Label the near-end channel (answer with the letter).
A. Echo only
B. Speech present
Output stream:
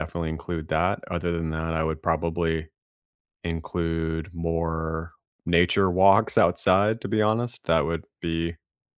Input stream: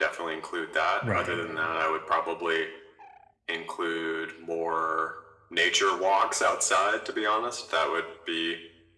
B